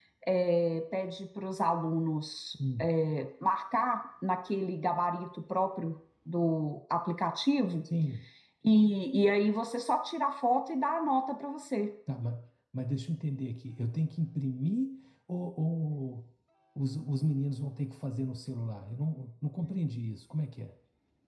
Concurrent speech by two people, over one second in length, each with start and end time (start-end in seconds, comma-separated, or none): none